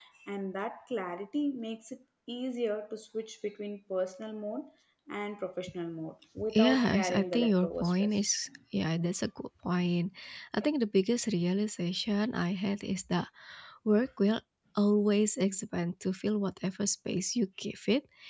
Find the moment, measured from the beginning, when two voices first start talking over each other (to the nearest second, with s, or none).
7 s